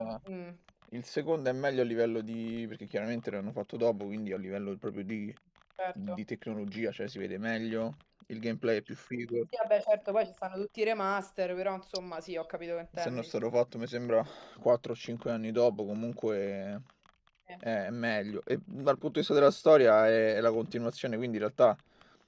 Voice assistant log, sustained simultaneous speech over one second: none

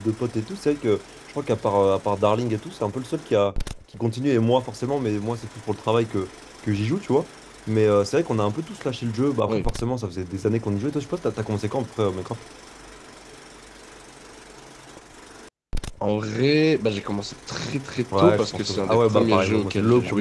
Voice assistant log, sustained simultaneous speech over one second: present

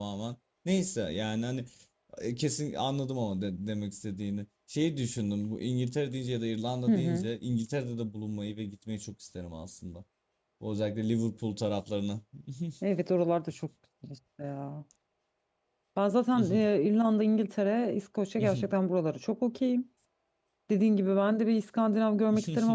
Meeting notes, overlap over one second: none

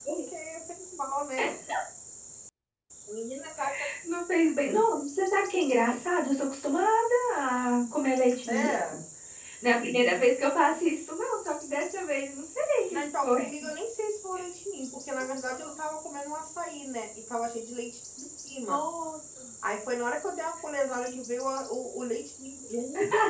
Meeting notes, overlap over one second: none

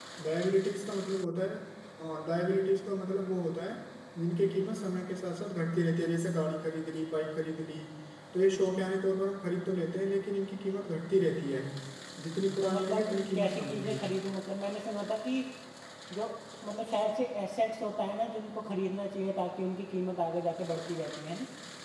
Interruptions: present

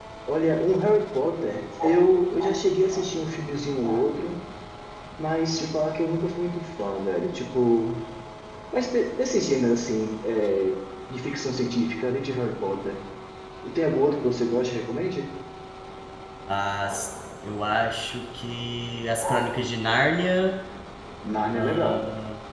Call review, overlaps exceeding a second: none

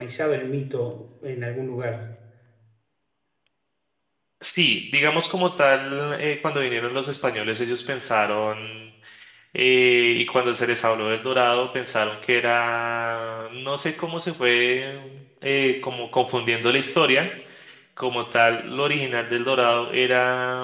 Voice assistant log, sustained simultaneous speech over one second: none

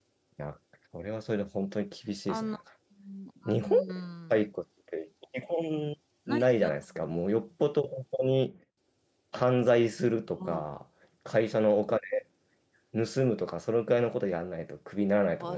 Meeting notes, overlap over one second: none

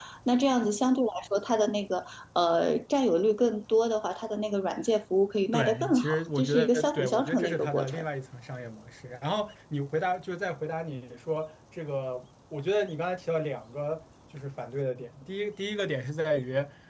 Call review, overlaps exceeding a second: present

